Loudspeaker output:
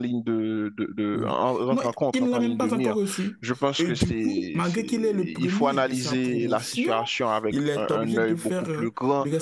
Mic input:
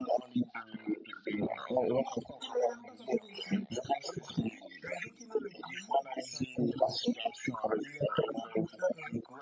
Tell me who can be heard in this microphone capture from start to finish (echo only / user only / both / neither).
echo only